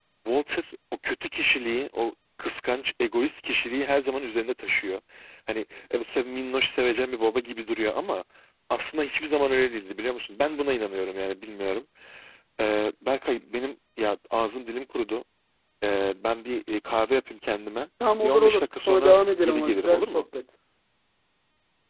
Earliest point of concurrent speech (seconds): 18 s

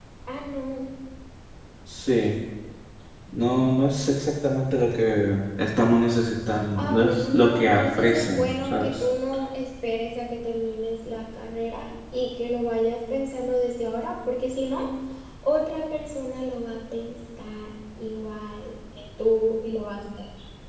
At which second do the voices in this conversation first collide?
7 s

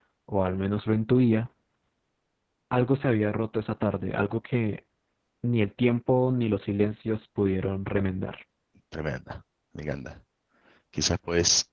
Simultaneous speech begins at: none

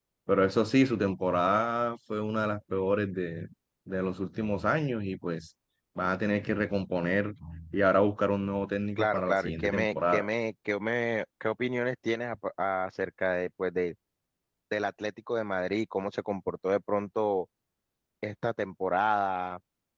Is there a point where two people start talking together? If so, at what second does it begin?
9 s

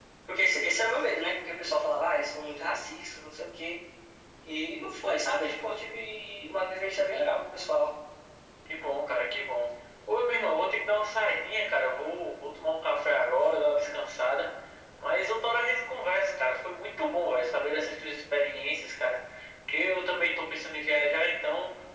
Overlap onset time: none

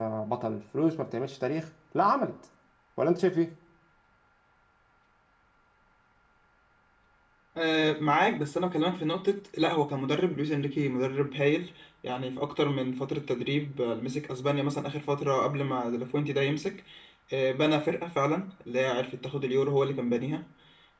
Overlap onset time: none

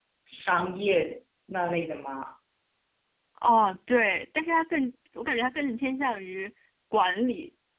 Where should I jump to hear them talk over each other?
none

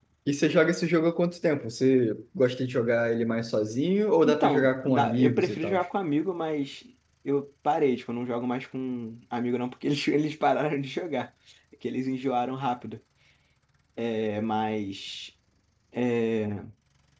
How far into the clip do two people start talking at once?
4 s

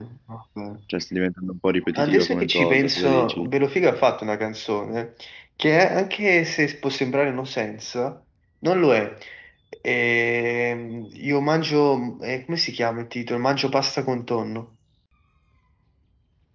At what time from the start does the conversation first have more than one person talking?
2 s

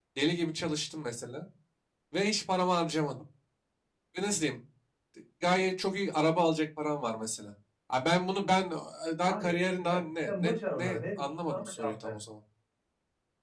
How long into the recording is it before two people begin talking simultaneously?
9 s

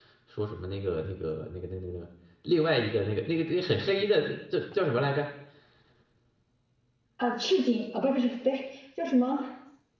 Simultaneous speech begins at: none

